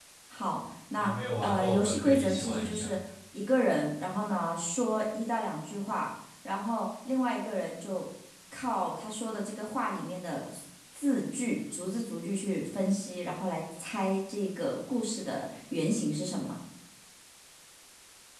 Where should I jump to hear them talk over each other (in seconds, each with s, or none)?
0.9 s